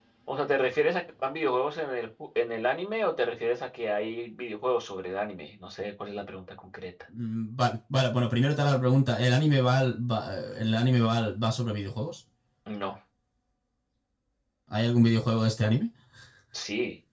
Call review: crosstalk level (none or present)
none